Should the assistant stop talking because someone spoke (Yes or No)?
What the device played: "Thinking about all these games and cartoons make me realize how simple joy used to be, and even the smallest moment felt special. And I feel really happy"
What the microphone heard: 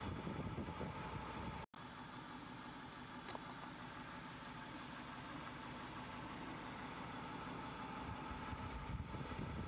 No